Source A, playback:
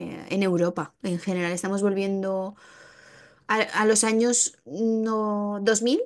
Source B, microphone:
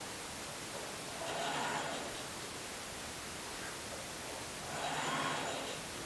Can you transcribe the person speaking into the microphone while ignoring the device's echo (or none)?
none